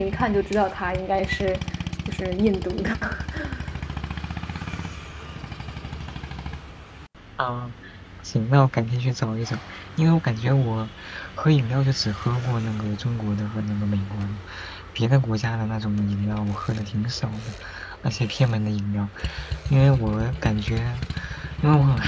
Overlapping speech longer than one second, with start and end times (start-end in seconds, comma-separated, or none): none